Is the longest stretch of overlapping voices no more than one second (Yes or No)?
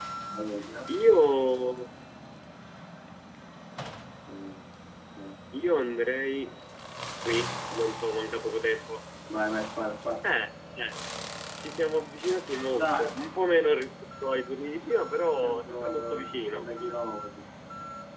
No